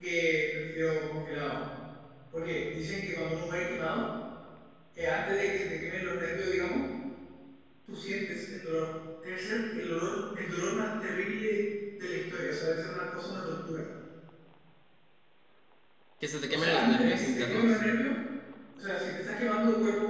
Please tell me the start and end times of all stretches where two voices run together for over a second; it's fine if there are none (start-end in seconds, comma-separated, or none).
16.5-17.8